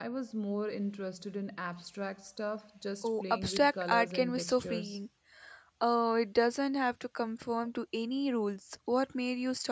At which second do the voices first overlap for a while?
3.0 s

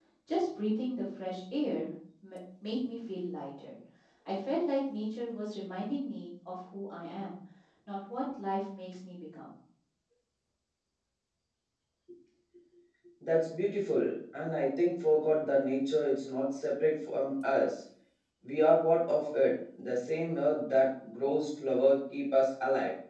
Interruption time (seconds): none

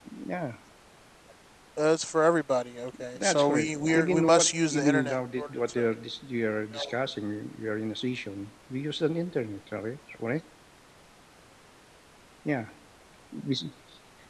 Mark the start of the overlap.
2.9 s

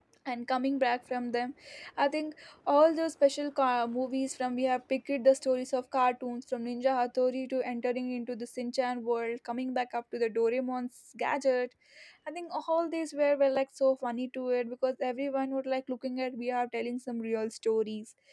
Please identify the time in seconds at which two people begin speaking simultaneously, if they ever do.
none

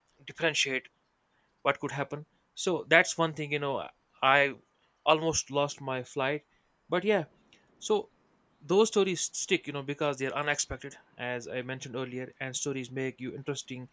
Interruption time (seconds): none

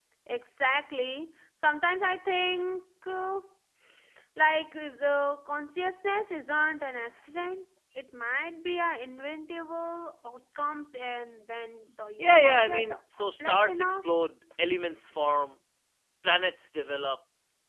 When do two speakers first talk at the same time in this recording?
12.2 s

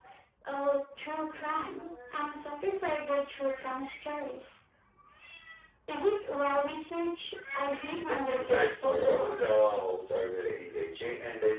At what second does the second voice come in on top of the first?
8.1 s

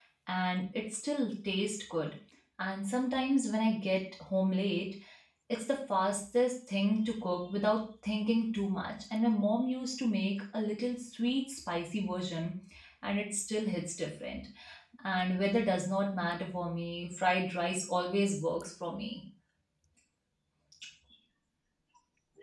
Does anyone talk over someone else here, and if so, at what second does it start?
none

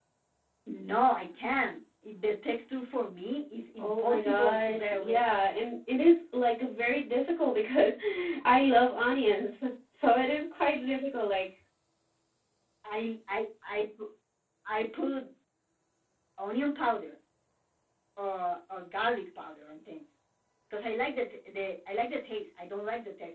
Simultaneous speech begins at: 3.8 s

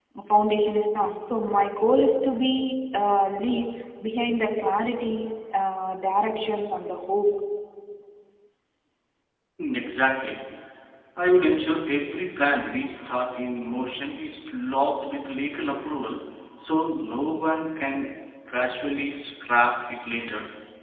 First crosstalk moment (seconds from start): none

